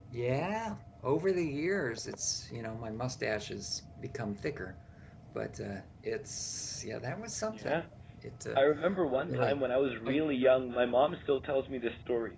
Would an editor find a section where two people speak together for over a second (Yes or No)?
No